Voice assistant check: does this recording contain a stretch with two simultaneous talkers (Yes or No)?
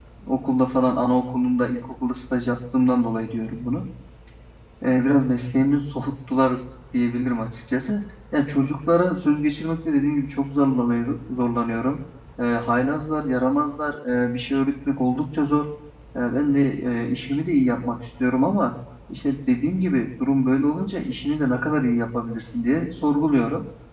No